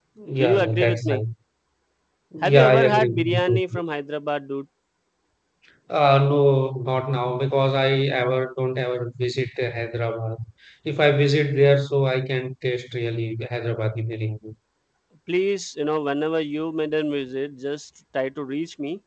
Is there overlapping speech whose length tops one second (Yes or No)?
Yes